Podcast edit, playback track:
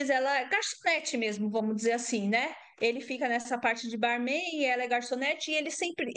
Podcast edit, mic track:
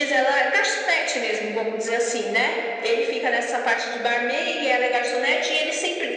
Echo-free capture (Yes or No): No